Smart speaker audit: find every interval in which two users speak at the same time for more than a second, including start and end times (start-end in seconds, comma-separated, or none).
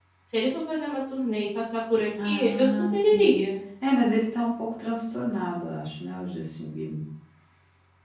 2.2-3.5